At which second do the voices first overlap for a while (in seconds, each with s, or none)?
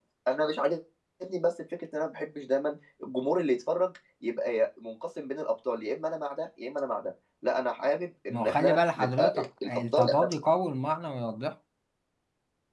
8.3 s